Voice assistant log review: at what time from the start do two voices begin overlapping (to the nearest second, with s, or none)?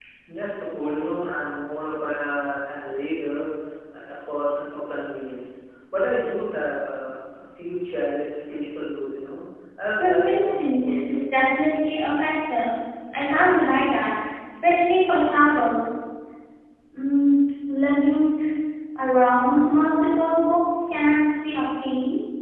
10 s